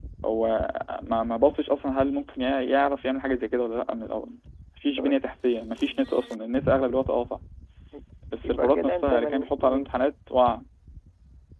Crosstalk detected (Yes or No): Yes